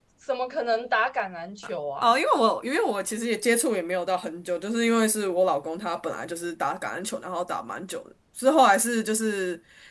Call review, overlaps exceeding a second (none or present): none